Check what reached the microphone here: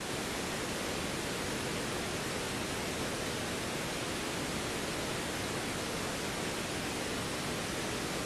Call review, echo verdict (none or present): none